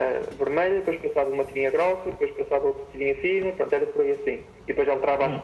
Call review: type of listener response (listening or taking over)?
listening